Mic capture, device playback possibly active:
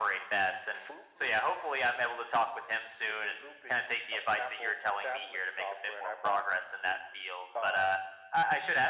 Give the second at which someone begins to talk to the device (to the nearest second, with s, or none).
none